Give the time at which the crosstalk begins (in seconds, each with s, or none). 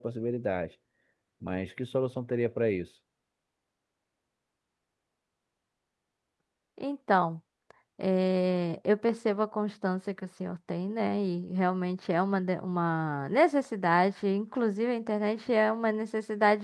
none